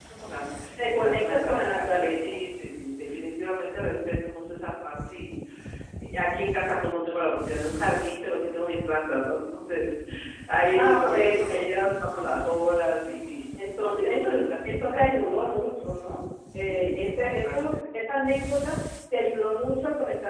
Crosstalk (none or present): present